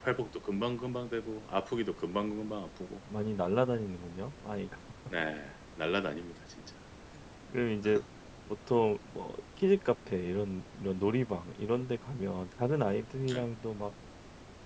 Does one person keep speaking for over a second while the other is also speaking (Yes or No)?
No